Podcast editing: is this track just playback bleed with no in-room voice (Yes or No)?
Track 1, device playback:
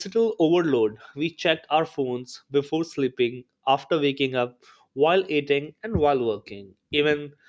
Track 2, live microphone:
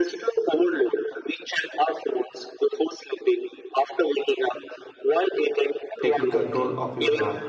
No